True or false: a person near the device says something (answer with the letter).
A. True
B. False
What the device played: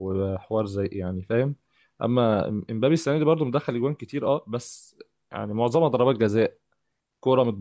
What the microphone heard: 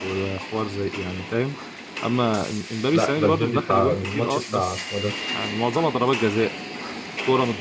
A